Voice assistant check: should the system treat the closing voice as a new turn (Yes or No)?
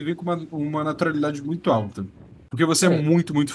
No